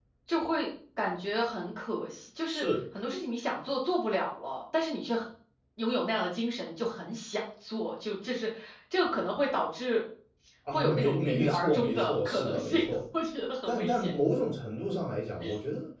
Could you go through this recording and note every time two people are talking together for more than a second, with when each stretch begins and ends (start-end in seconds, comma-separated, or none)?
10.7-12.8